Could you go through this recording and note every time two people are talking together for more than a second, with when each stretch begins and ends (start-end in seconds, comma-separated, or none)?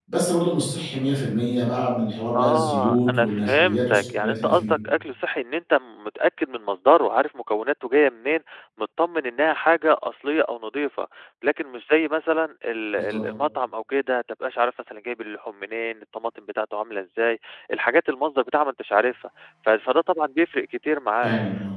2.3-4.7